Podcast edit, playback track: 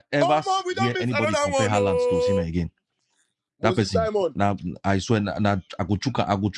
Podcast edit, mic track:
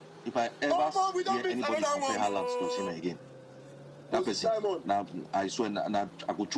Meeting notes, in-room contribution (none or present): none